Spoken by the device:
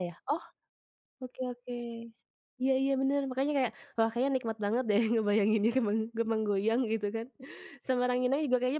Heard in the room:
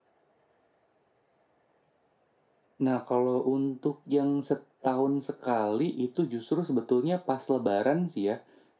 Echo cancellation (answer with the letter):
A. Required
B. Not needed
B